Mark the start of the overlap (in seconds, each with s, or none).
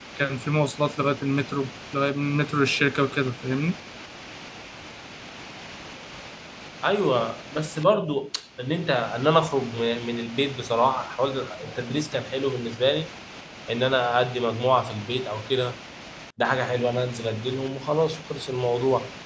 none